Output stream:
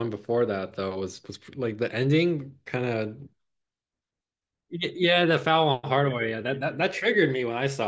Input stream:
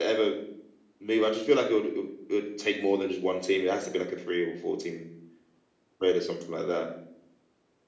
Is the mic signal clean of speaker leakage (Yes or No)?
Yes